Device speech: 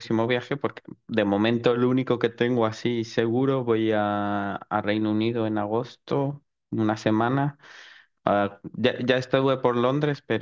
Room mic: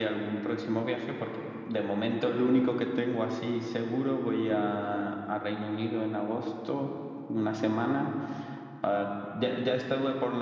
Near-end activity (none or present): none